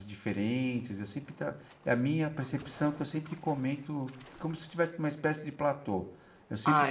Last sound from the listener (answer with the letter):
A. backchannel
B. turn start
A